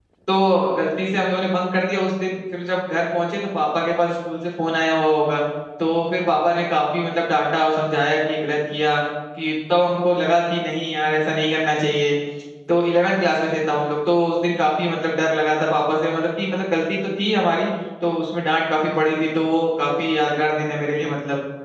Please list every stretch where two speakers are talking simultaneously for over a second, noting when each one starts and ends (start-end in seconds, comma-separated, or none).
none